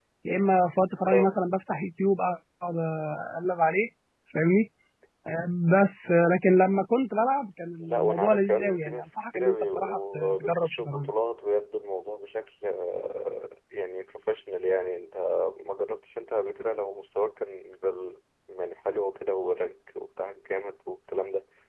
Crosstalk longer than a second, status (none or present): present